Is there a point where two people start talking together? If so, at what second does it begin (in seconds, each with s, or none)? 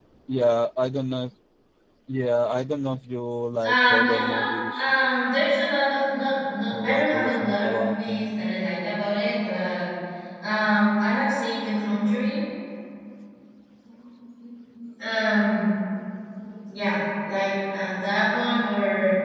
3.6 s